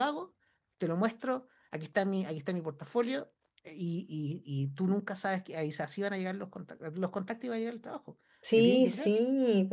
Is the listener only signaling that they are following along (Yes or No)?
No